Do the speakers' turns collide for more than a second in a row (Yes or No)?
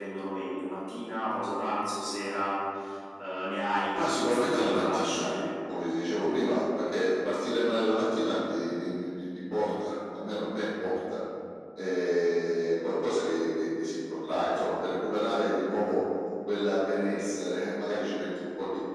Yes